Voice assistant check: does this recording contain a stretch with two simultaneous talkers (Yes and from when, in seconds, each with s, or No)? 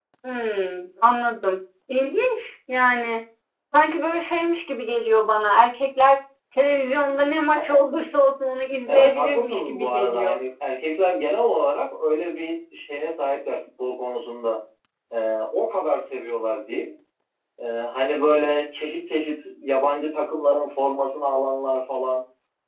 Yes, from 8.9 s